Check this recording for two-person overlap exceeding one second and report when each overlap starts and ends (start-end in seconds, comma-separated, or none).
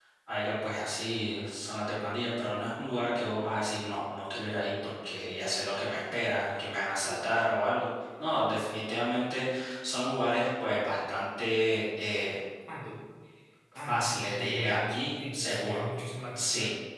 13.8-15.8